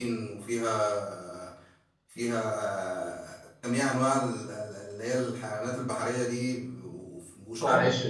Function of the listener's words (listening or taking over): taking over